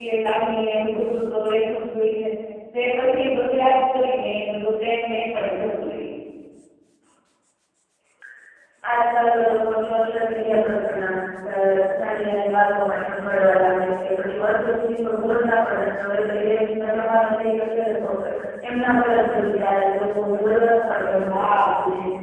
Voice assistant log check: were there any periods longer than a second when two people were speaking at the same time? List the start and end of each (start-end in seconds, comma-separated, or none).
none